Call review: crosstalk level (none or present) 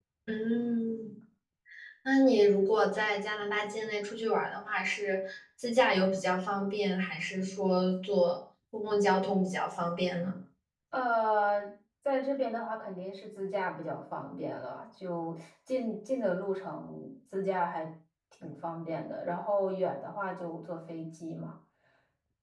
none